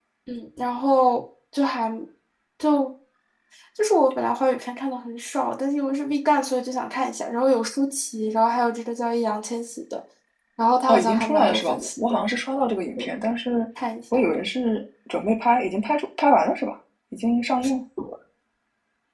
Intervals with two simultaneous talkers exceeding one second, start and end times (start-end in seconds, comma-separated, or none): 10.9-12.2